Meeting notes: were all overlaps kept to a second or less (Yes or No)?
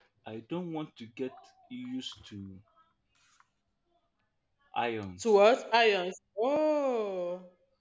Yes